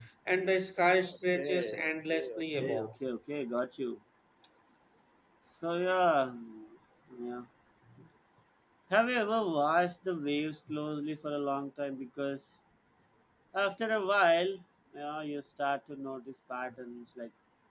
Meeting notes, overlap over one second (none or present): present